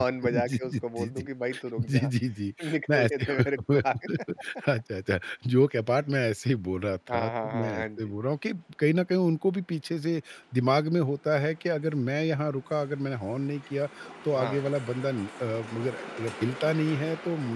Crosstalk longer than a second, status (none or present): present